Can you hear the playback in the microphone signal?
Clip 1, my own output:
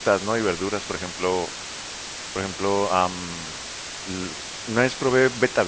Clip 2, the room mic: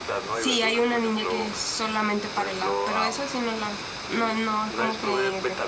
Yes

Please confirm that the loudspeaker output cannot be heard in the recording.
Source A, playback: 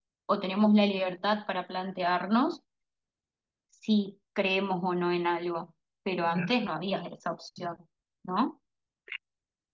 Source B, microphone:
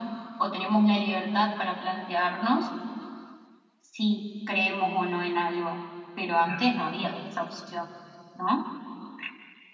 No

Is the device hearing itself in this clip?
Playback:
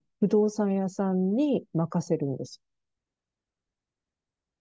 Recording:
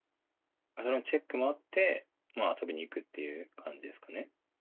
No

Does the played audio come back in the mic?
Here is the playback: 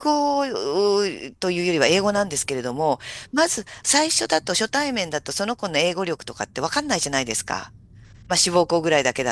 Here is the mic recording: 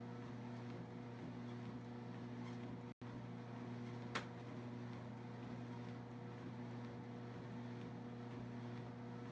No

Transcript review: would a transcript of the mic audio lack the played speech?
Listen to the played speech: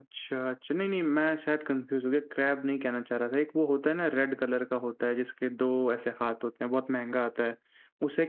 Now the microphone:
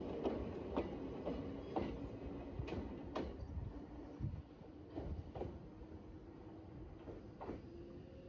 Yes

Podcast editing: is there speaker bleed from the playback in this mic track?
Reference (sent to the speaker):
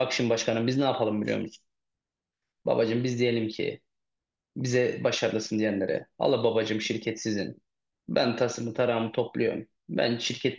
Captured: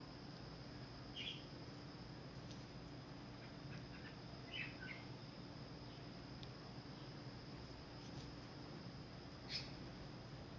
No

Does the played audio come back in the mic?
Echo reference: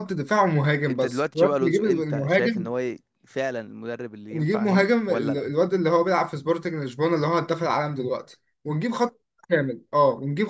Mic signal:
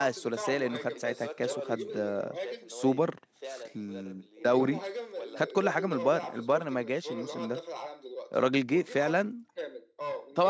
Yes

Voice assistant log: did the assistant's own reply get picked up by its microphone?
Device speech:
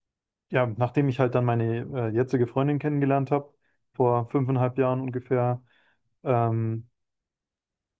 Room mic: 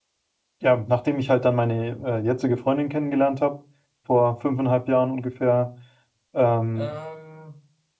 Yes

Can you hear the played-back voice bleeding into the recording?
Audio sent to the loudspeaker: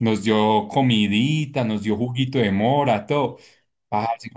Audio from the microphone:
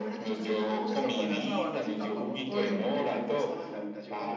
Yes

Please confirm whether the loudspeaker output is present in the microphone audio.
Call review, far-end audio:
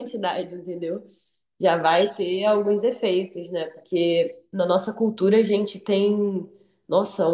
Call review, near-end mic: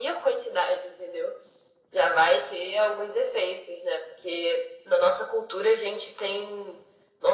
Yes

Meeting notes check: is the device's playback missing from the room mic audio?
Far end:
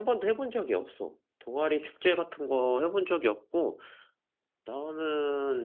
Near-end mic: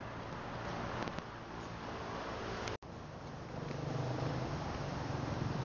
Yes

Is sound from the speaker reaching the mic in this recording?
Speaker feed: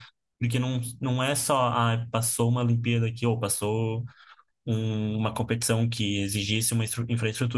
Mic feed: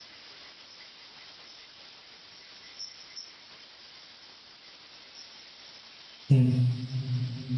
No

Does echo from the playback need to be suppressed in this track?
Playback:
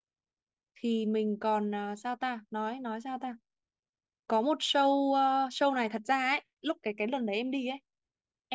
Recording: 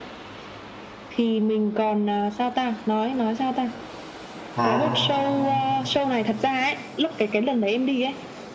Yes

